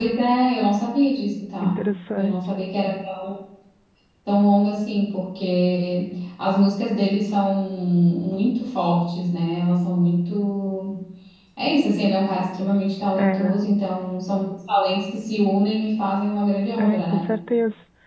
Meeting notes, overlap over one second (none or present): none